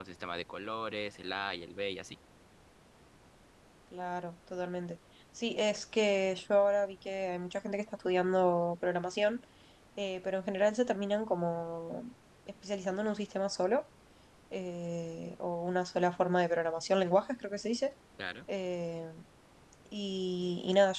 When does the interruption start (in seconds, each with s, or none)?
none